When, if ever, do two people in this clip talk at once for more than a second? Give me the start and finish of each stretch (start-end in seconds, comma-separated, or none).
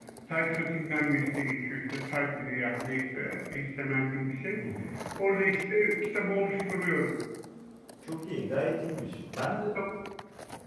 none